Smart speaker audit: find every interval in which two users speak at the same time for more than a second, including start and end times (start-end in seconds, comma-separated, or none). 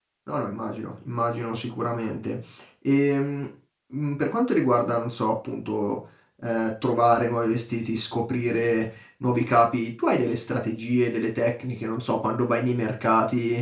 none